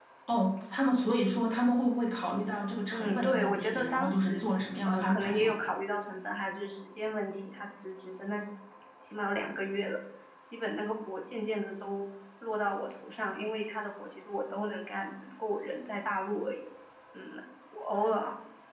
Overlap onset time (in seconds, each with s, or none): 2.9 s